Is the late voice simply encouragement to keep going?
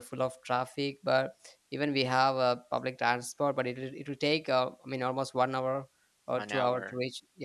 Yes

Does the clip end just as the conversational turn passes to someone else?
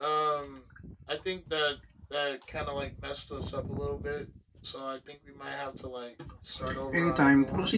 Yes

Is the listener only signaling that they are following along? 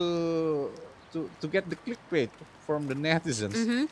No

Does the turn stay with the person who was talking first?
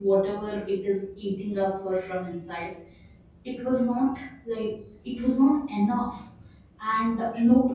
Yes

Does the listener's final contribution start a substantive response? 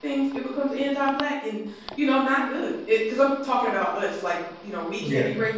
No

